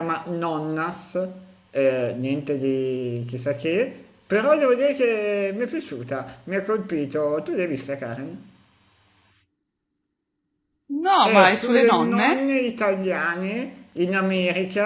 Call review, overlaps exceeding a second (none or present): present